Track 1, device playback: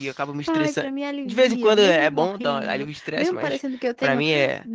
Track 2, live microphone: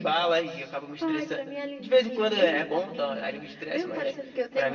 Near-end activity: none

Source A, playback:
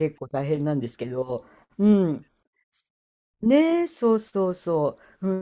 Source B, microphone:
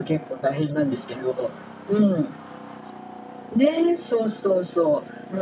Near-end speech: none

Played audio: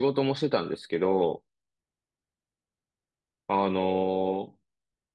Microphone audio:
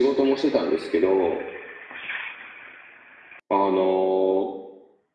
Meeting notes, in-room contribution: none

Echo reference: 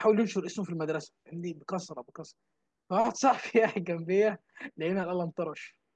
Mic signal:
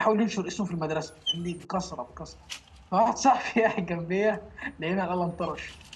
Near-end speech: none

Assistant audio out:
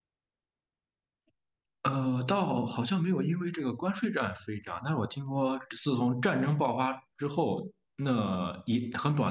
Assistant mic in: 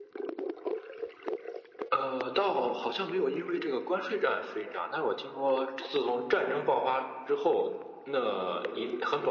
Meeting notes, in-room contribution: none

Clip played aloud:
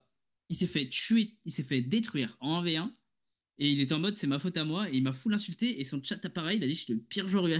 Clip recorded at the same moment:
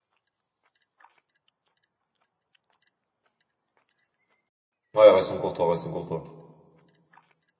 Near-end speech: present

